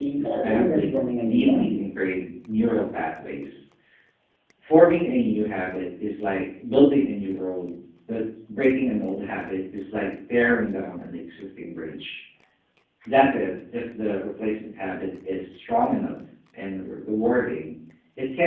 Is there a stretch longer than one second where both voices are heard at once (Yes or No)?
Yes